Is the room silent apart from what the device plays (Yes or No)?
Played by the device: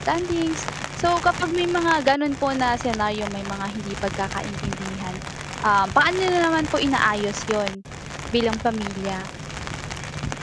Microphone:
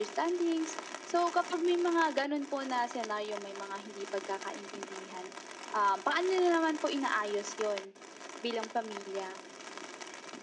Yes